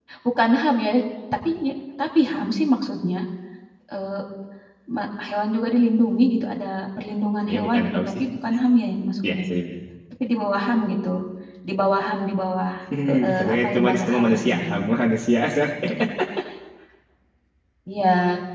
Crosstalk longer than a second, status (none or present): present